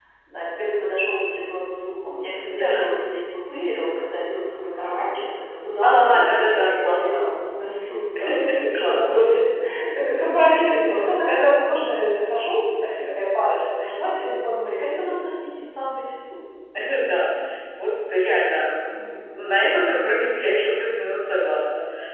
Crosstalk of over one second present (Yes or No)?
Yes